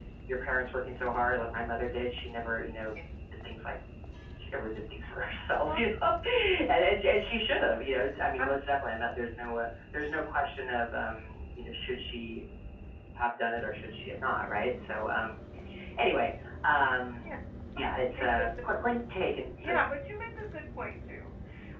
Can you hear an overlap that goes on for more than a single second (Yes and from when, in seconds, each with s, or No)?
No